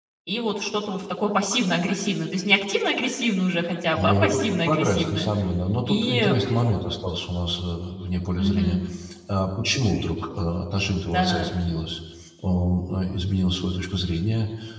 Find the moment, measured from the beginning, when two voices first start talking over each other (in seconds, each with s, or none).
4.0 s